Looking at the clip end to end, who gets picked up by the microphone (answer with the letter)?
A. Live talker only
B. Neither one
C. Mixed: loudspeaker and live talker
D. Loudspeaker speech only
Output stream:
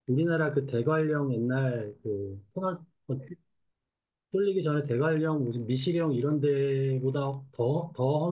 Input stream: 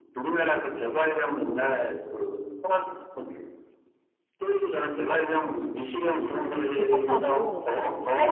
C